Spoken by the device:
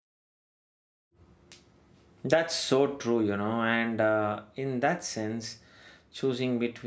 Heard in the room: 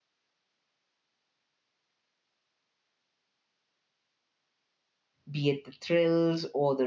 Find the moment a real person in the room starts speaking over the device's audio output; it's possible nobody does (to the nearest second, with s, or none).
5 s